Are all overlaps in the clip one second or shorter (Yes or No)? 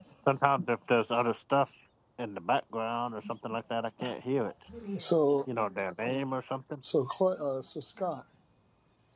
Yes